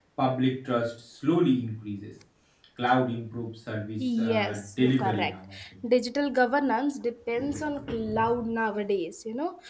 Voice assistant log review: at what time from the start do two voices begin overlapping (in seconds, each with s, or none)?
4.0 s